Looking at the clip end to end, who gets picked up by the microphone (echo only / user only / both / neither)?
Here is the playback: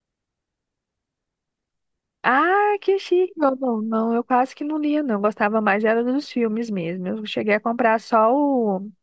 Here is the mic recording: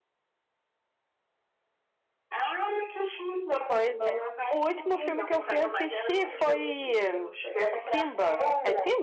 both